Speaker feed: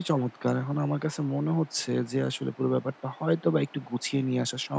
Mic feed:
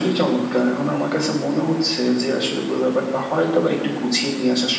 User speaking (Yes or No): No